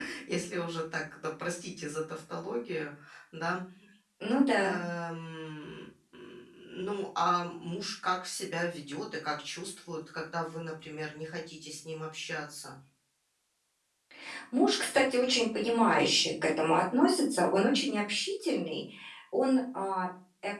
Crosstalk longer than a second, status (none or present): none